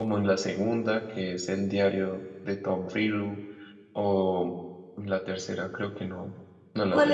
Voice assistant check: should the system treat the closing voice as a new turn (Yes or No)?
Yes